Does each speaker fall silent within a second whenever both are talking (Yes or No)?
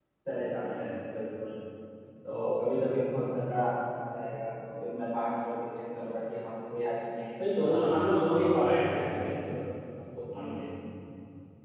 No